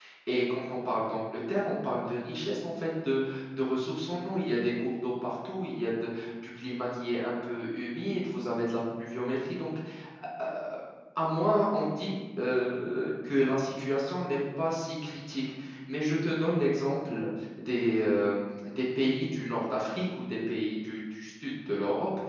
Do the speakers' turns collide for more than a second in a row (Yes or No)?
No